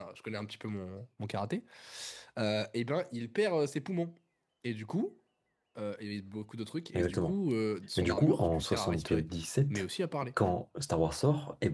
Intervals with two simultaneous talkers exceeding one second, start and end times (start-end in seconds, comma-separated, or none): 8.0-9.3